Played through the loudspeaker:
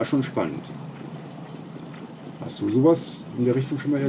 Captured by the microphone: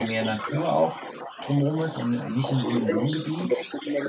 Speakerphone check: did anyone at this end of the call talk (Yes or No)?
Yes